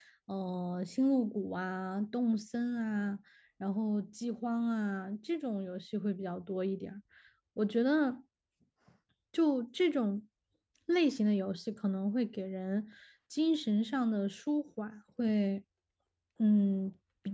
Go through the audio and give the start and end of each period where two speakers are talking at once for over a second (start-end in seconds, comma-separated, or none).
none